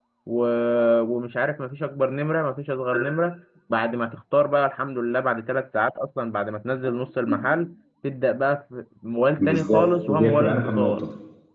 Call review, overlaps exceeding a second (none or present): present